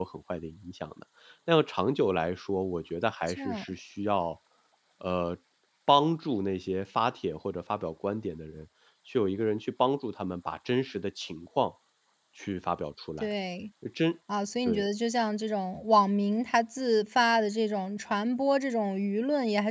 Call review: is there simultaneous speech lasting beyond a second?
No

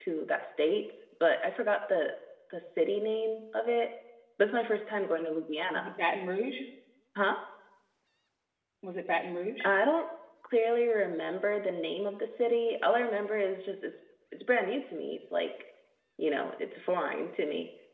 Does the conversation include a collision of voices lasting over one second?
No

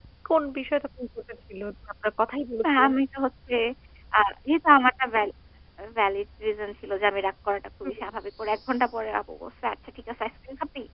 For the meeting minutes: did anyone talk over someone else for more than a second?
No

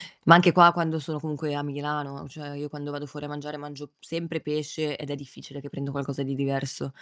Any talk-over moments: No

